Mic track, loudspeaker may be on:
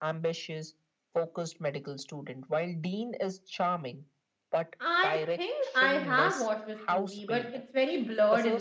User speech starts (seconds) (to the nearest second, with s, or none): 5 s